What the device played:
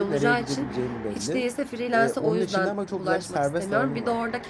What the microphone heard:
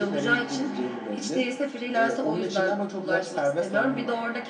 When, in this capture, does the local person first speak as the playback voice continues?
none

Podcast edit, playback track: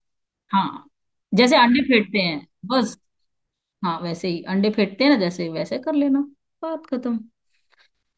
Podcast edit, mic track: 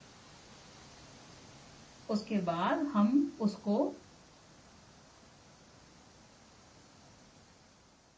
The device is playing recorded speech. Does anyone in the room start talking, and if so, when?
2.1 s

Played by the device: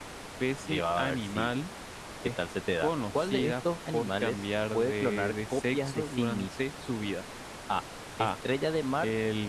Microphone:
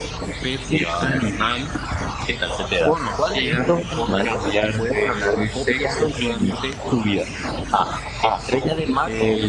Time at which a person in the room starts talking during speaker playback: none

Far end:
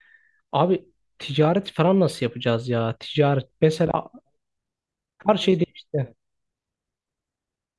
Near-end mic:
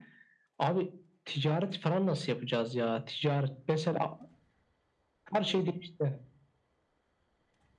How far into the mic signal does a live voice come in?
none

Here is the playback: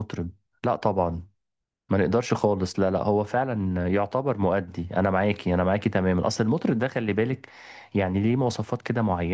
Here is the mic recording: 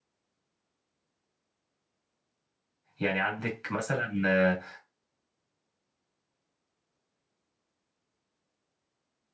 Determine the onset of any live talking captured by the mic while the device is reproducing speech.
3.0 s

